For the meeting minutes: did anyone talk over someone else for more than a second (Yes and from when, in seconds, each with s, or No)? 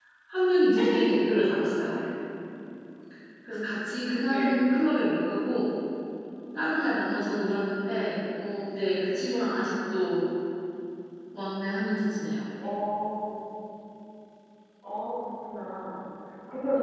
No